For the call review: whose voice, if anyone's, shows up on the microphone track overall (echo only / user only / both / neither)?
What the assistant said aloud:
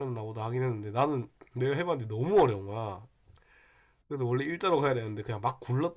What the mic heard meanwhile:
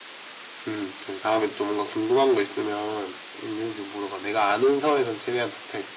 user only